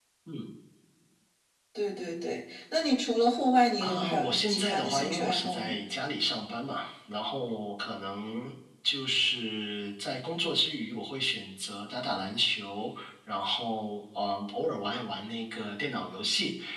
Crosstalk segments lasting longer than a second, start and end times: 3.8-5.8

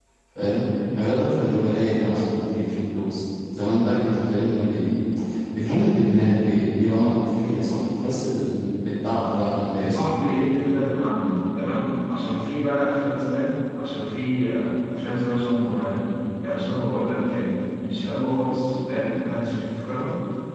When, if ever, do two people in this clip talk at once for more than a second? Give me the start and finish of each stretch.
none

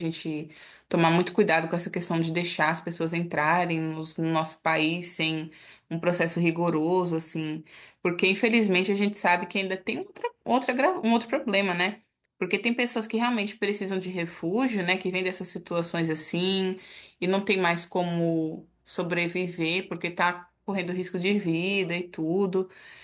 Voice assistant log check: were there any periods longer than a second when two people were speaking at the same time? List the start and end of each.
none

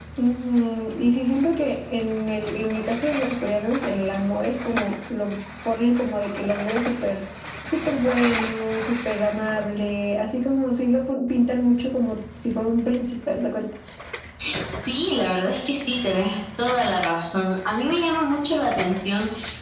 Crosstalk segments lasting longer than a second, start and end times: none

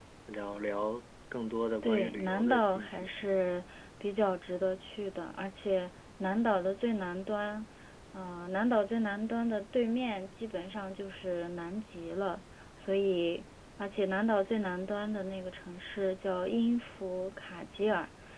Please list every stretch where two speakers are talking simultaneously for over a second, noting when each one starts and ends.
1.8-3.1

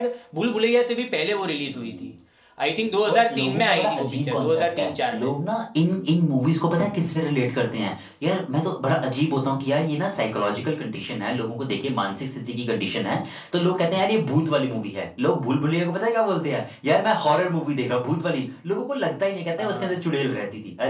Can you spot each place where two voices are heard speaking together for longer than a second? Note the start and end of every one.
3.1-5.3

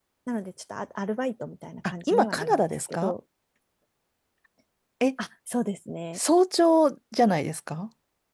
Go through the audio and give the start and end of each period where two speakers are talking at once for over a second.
1.9-3.1

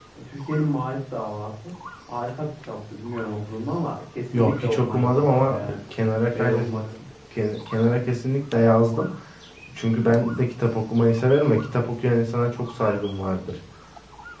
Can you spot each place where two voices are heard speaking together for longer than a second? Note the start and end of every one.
4.3-5.8

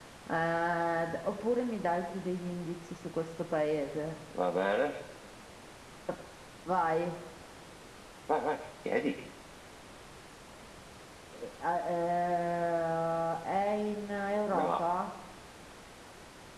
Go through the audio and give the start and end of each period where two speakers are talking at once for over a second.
none

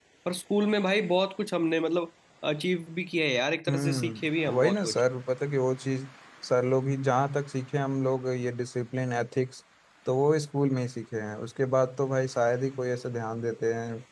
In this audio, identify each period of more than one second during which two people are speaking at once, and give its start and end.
3.7-5.0

